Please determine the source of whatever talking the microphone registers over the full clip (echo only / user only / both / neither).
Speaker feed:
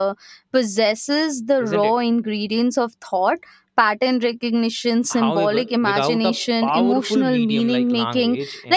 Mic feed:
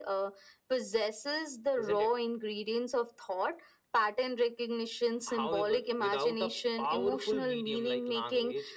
echo only